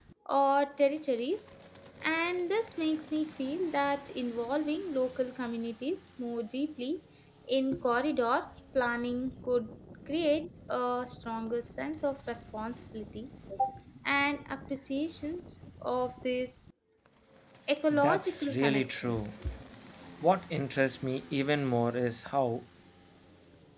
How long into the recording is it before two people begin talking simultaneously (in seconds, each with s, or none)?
17.9 s